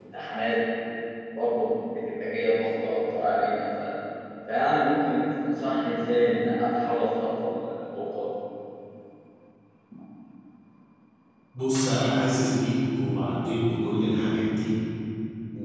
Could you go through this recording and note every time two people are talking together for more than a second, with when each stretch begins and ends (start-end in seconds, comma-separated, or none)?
none